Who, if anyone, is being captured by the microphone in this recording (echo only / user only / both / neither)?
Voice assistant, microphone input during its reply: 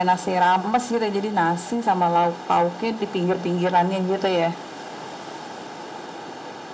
echo only